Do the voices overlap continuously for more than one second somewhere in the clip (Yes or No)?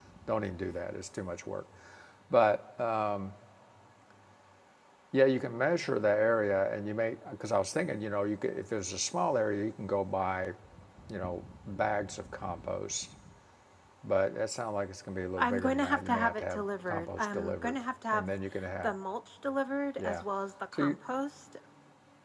Yes